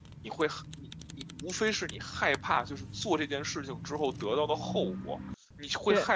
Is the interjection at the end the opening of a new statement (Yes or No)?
No